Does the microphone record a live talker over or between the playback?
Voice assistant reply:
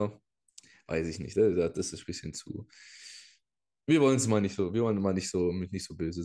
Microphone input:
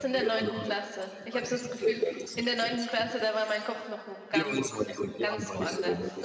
Yes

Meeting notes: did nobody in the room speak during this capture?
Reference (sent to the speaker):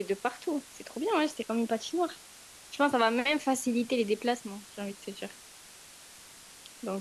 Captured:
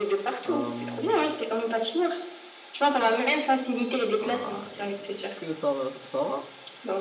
No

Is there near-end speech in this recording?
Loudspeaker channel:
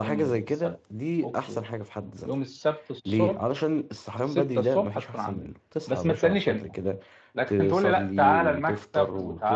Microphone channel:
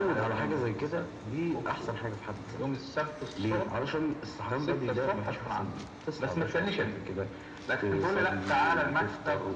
No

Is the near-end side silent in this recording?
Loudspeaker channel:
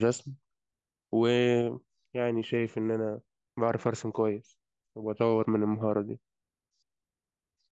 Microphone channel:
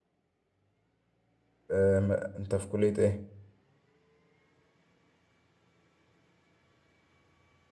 No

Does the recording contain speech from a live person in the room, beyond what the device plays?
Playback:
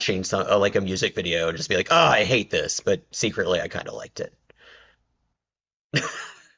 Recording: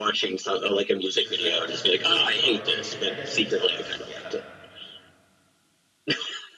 Yes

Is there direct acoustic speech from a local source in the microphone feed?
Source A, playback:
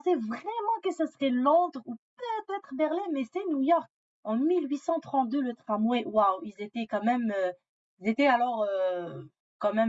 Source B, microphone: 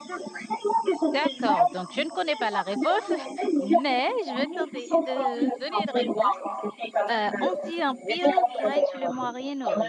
Yes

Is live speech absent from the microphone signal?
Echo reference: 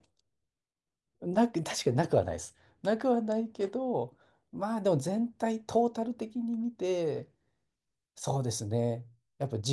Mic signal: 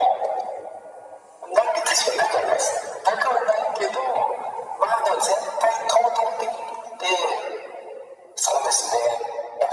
Yes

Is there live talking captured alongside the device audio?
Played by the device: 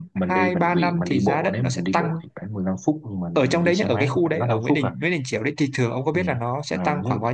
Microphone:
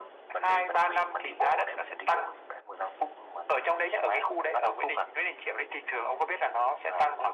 No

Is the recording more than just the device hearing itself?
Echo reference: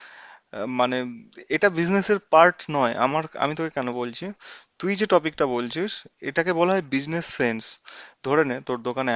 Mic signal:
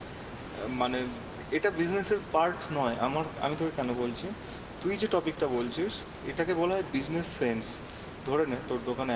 No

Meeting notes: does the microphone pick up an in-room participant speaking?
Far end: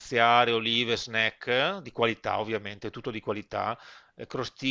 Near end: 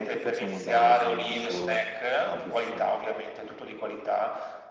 Yes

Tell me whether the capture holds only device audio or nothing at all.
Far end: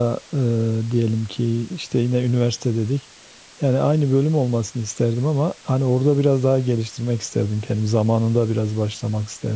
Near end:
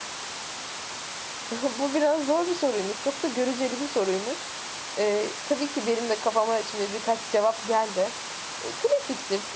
No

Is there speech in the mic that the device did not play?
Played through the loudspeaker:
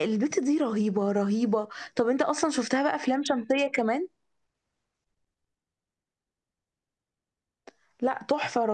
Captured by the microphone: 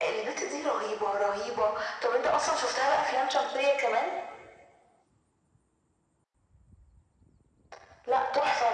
No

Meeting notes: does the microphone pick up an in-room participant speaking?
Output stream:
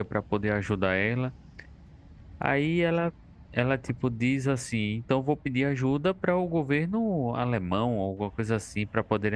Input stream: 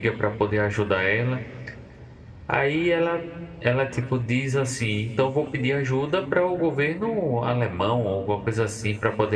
No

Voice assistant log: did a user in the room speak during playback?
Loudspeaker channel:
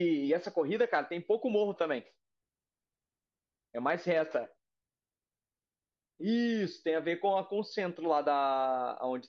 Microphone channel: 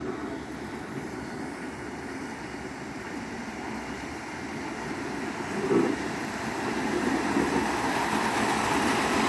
No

